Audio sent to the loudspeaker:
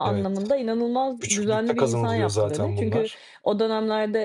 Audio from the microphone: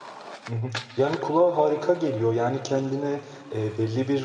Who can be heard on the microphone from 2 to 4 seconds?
user only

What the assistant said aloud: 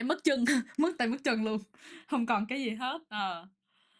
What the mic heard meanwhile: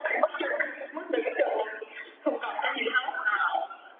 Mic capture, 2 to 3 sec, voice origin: echo only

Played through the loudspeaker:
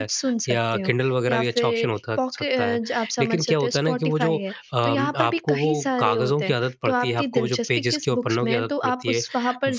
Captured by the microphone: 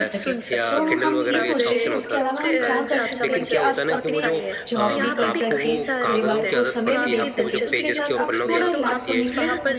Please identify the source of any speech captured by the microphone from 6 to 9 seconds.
both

